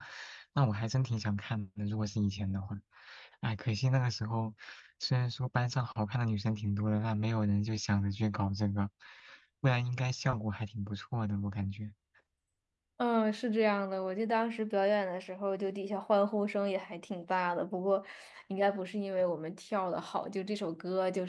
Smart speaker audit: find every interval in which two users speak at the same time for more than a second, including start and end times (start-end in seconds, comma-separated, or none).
none